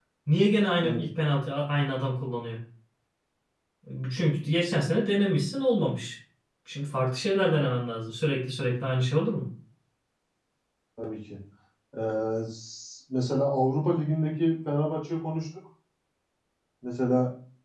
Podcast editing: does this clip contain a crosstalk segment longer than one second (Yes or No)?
No